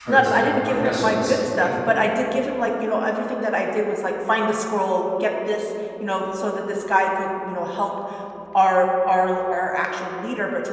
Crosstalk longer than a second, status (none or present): present